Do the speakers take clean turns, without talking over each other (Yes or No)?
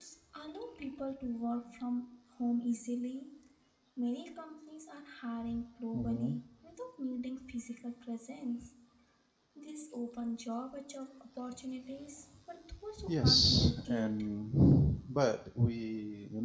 No